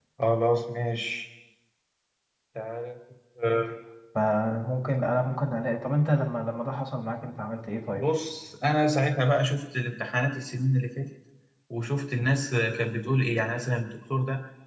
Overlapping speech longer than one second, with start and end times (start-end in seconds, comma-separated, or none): none